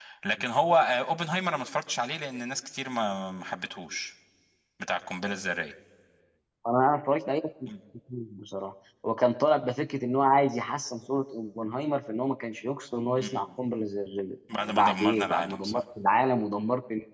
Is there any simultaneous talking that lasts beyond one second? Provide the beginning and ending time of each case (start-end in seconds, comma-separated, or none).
14.6-15.8